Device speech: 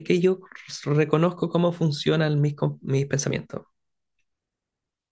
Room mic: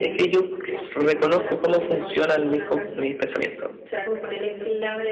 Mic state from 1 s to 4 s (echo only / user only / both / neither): both